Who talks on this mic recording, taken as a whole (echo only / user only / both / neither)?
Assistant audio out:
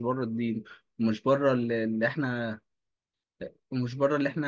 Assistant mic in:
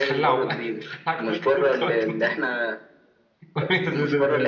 both